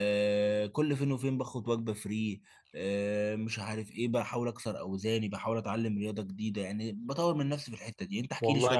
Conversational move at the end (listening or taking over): taking over